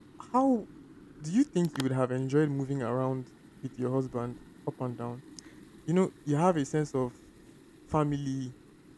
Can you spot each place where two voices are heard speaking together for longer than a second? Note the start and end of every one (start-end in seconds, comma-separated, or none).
none